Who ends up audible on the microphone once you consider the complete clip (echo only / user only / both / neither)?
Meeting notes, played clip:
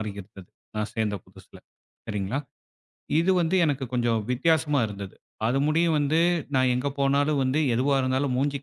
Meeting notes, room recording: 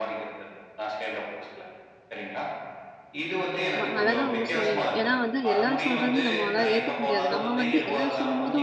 both